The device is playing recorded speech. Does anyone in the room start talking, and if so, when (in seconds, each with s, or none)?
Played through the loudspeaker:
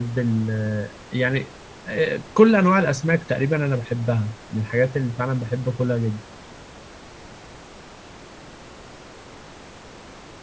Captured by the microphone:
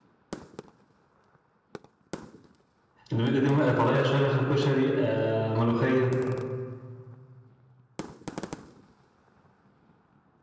3.1 s